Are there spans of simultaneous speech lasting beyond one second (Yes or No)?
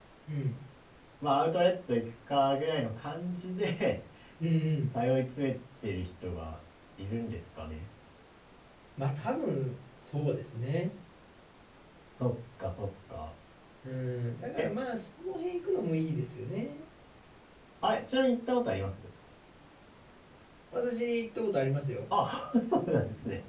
No